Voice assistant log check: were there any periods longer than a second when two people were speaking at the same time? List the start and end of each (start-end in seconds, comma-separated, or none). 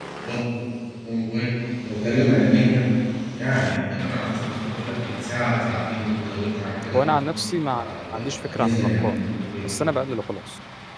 7.7-9.1